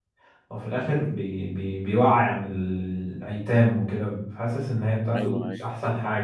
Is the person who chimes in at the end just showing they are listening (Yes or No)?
Yes